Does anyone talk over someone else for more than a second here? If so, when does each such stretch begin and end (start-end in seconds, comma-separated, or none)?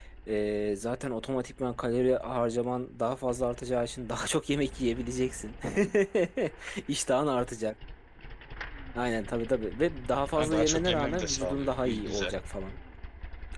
10.4-12.3